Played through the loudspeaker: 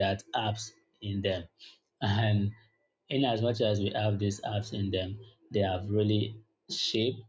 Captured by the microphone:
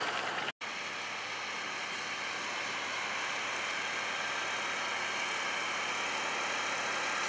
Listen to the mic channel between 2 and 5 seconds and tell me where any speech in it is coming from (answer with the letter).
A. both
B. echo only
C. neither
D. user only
C